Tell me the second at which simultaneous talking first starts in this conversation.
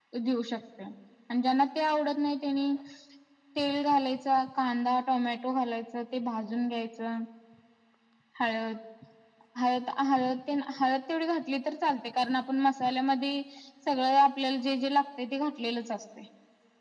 none

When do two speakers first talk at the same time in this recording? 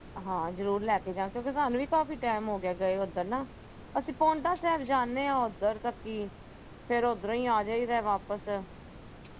none

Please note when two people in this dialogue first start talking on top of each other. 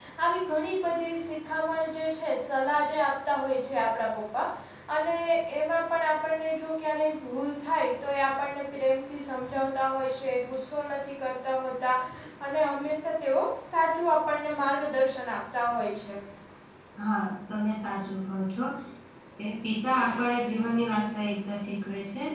none

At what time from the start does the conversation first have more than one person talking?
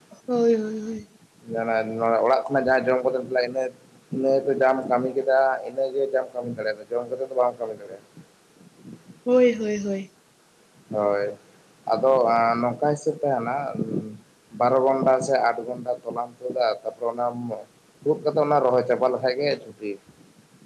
none

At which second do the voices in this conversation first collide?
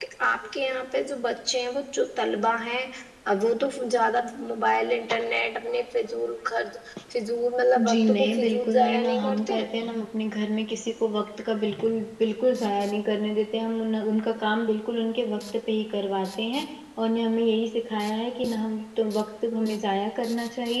7.9 s

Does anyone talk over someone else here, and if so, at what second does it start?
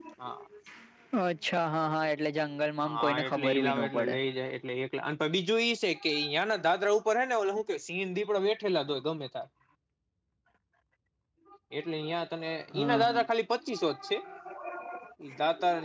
2.9 s

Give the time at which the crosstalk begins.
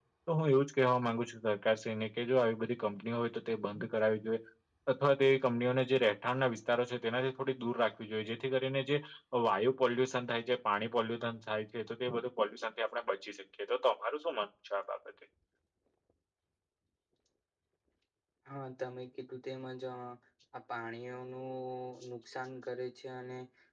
none

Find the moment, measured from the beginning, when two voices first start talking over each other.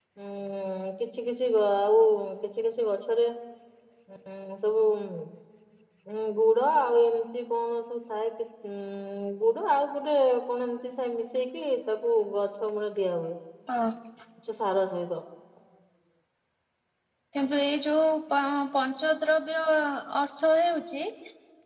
none

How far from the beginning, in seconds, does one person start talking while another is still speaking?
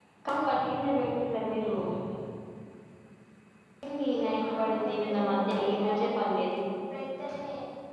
4.2 s

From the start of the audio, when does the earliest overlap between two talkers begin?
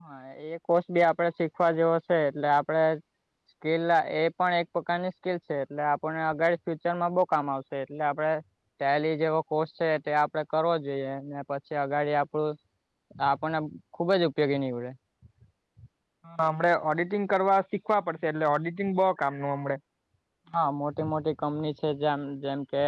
none

